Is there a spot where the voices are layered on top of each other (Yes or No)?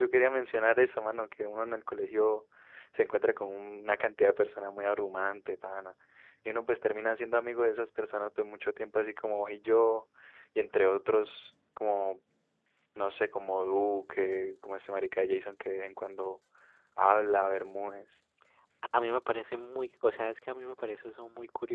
No